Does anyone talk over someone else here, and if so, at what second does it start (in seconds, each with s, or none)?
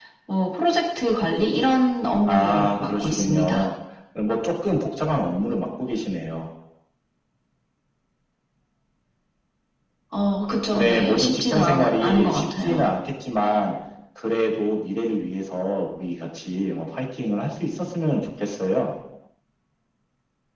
2.2 s